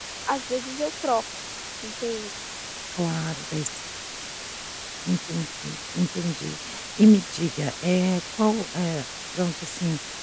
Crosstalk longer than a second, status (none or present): none